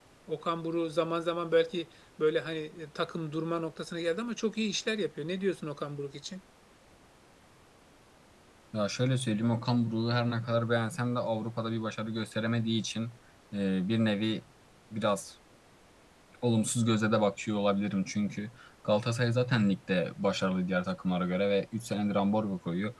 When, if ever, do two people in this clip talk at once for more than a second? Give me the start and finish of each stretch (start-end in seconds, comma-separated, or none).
none